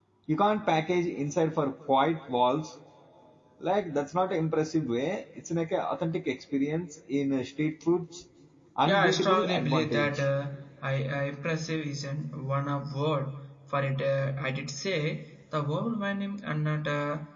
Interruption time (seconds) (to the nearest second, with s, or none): 9 s